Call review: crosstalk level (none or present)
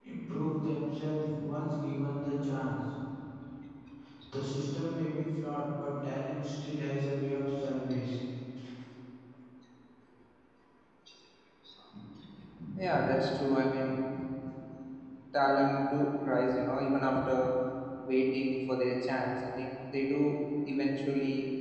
none